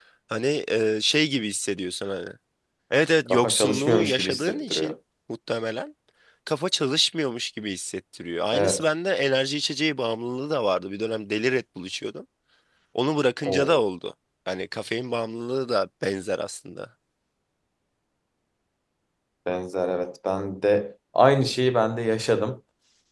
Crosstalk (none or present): present